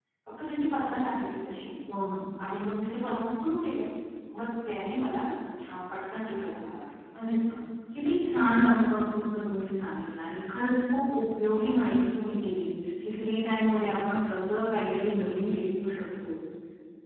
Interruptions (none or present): none